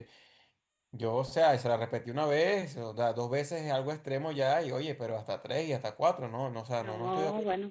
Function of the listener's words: taking over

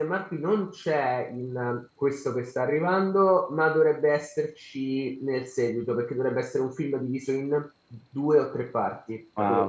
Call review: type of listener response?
taking over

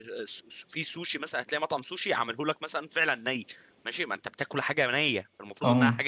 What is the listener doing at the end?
listening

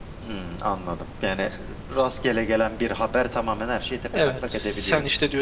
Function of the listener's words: taking over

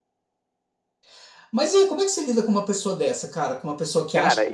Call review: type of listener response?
taking over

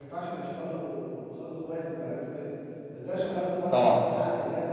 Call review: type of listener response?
listening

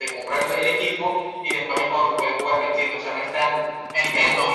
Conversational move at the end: taking over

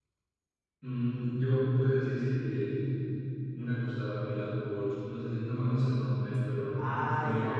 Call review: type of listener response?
taking over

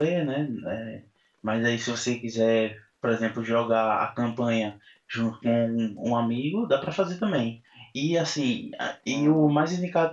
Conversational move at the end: listening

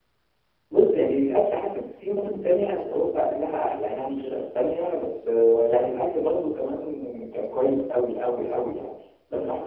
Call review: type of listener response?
listening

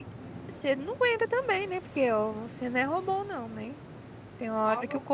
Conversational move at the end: listening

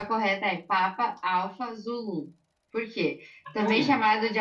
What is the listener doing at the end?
listening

